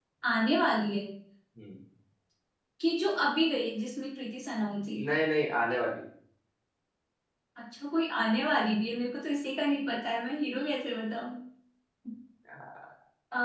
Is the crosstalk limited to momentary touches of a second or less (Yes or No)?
Yes